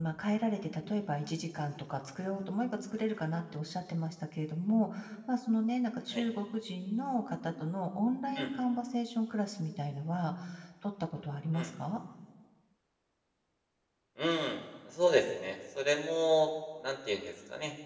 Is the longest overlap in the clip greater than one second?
No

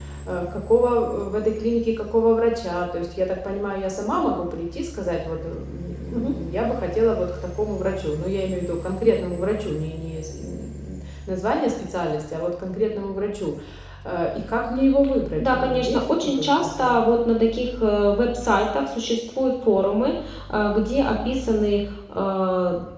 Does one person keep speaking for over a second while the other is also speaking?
Yes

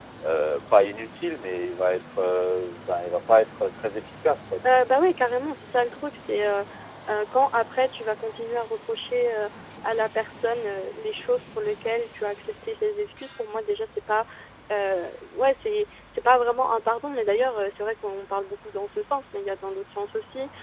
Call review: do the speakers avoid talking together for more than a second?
Yes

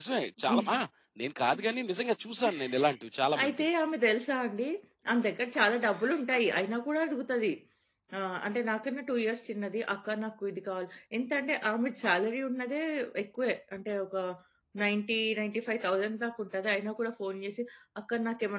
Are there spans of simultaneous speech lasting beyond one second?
No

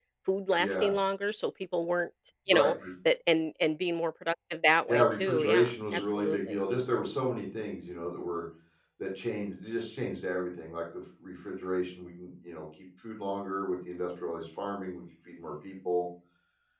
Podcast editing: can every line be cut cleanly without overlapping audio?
No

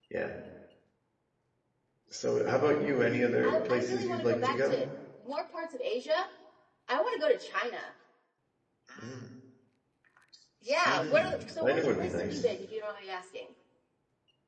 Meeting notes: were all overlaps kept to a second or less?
No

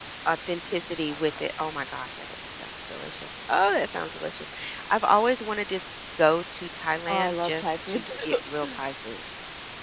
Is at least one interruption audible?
Yes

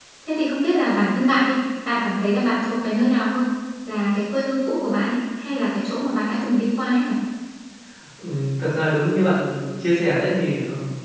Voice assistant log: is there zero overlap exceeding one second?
Yes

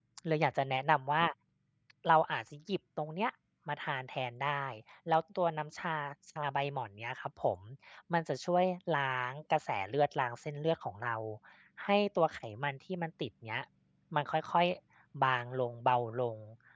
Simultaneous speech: No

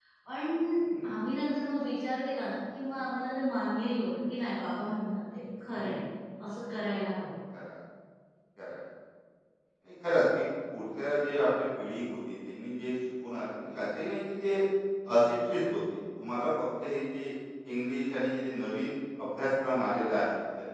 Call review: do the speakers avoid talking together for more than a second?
Yes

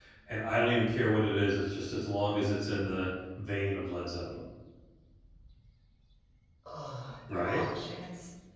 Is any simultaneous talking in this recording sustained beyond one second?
No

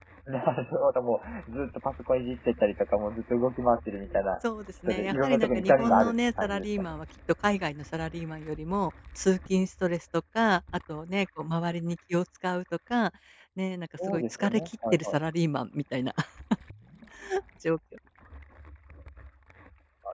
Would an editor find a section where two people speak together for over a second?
Yes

